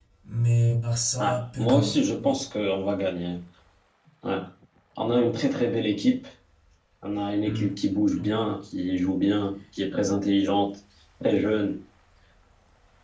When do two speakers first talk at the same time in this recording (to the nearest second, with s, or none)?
1 s